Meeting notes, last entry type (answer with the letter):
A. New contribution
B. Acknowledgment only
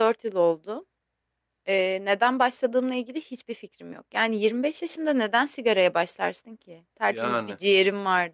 B